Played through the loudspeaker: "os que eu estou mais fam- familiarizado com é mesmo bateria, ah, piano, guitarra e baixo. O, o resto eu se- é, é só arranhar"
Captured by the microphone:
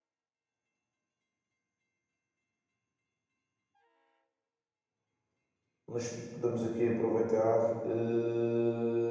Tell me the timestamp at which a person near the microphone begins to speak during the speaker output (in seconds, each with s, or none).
5.9 s